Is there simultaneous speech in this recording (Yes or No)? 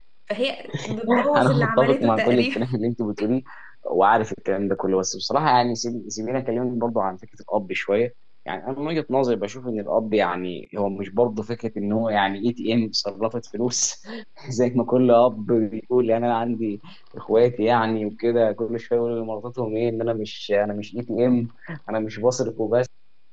Yes